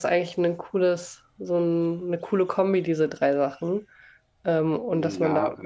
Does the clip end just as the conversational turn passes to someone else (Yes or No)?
Yes